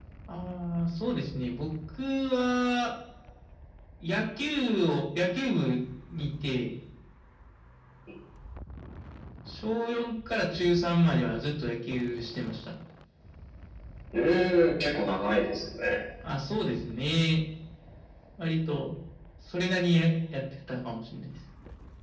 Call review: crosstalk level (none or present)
none